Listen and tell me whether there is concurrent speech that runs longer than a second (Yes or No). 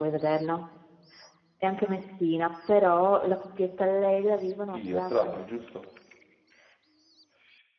Yes